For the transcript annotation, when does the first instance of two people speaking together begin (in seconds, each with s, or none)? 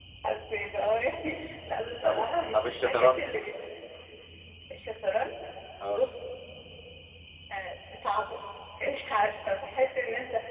2.0 s